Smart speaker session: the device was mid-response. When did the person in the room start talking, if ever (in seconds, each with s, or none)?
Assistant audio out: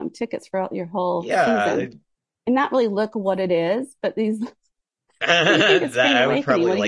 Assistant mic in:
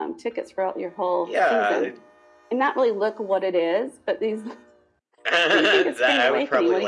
none